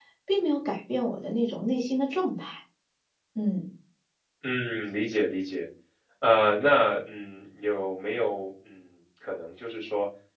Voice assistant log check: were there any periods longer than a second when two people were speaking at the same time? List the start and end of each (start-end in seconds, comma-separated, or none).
none